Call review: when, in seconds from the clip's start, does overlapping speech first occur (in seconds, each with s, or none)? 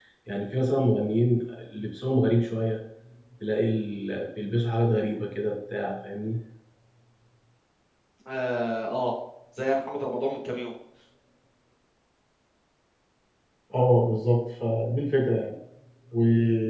none